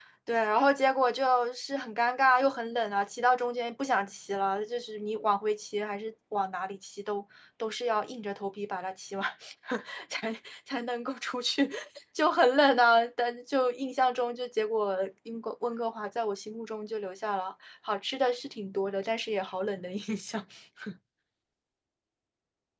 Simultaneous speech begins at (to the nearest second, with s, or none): none